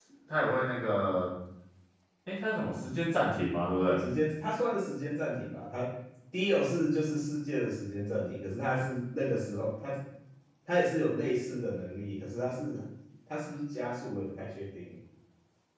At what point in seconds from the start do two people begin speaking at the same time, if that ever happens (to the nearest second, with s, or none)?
none